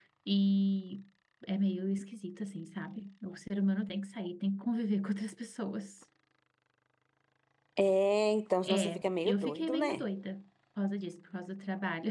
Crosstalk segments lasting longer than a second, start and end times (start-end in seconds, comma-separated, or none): 8.6-10.0